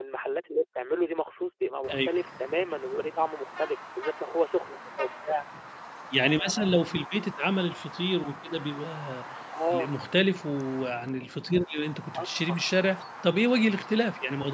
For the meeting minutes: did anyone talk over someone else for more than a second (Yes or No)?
No